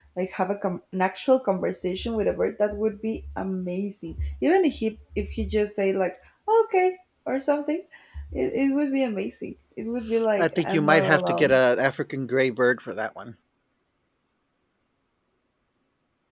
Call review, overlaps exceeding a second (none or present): present